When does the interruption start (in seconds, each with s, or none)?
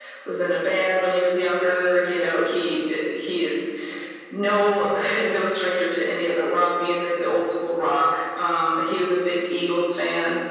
none